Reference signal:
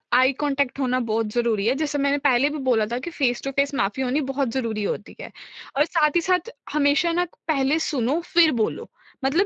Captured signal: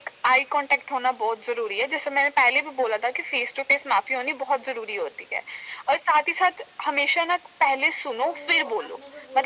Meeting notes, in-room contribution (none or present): present